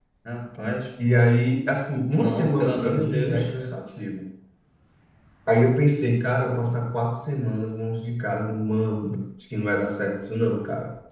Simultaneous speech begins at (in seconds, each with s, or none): 2.2 s